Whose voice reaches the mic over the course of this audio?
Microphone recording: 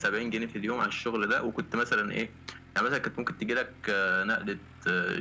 echo only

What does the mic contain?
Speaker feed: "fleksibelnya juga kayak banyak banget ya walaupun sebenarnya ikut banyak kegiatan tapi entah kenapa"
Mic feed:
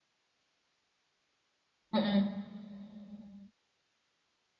user only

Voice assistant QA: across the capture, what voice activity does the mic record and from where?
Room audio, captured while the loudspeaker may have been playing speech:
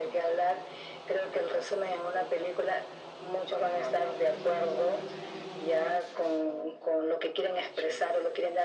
echo only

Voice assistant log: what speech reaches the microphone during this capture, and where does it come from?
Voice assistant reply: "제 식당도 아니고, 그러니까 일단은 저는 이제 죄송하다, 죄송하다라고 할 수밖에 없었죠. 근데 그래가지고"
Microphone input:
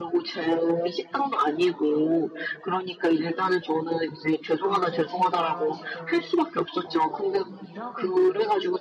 both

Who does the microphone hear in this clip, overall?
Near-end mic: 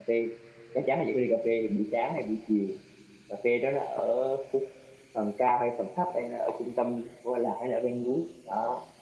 user only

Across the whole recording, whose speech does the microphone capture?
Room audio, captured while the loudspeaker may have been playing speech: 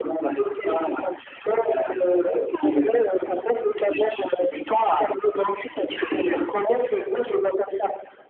echo only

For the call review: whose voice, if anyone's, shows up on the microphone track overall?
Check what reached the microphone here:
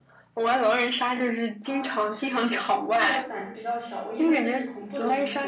both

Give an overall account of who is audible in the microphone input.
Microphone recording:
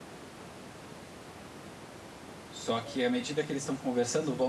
user only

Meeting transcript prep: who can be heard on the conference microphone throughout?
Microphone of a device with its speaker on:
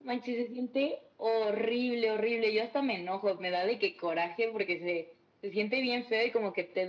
echo only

